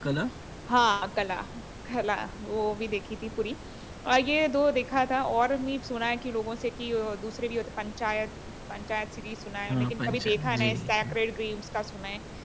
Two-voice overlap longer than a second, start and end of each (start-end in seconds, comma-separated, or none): 9.7-11.2